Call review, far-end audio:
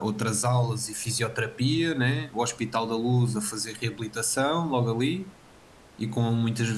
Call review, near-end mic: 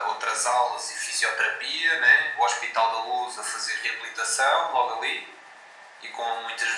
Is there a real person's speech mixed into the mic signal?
No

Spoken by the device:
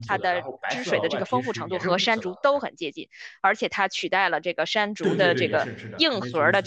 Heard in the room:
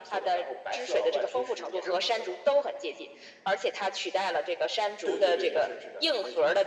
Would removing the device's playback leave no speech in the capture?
Yes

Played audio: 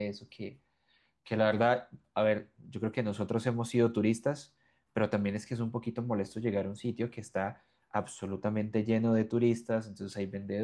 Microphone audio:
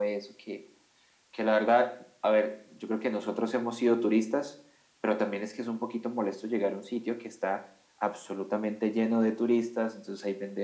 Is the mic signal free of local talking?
Yes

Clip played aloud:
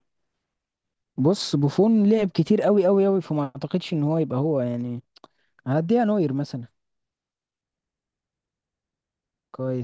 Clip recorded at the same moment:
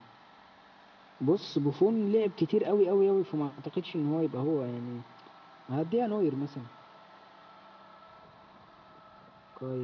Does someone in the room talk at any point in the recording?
No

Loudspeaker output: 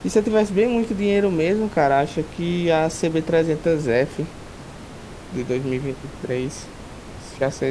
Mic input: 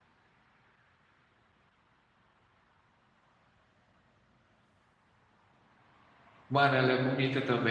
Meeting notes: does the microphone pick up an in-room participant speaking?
Yes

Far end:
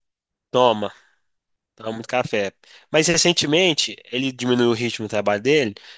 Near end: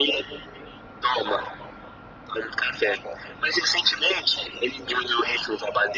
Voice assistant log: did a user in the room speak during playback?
No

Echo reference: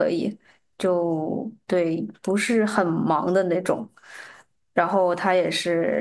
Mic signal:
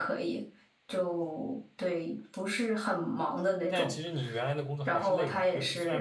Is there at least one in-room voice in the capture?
Yes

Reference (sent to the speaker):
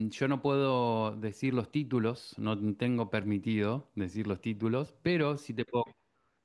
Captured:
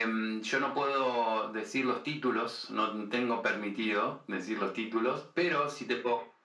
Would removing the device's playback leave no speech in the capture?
Yes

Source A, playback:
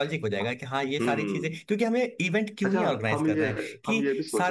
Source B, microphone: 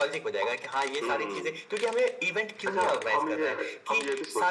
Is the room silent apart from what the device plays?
Yes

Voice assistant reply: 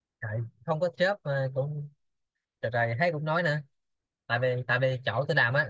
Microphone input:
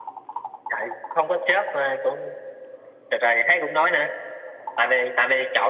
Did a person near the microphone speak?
No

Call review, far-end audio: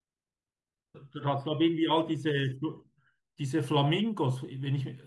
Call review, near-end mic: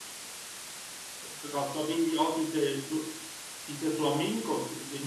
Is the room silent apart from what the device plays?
Yes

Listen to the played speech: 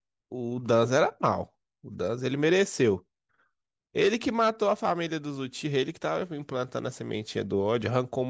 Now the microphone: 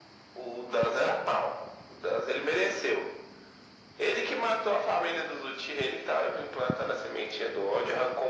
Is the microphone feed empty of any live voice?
Yes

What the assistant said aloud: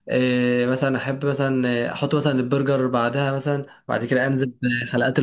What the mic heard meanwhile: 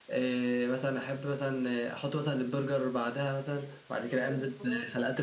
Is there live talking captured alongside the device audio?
Yes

